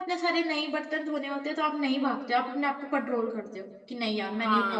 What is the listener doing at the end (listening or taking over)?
taking over